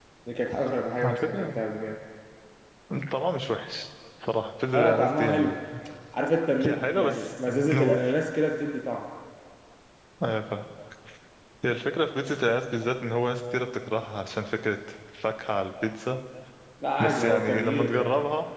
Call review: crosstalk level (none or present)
present